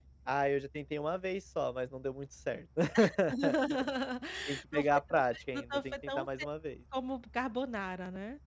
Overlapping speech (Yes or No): Yes